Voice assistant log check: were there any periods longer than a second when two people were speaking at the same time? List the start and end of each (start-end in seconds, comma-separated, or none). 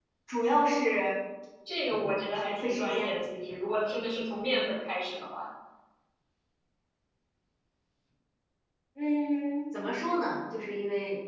1.9-3.2